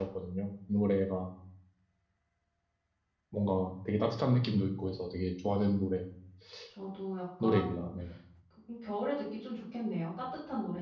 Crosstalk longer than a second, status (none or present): none